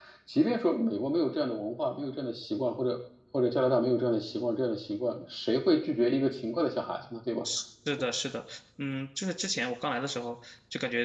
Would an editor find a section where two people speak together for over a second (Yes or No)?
No